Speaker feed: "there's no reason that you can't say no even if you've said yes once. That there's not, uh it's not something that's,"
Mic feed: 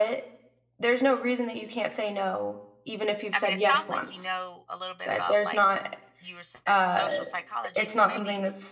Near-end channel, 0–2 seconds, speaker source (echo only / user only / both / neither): echo only